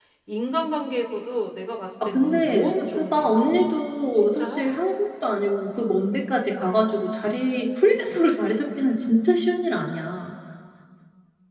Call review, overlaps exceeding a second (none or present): present